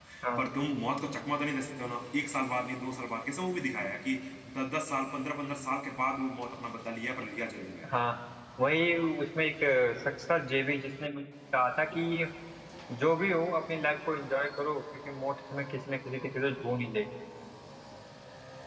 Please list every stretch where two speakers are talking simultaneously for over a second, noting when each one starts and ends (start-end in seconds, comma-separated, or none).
none